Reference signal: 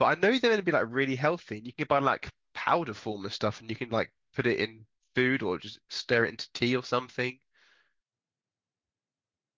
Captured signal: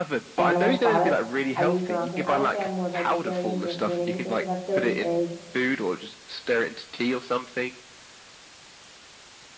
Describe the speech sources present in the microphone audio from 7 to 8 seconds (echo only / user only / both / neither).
echo only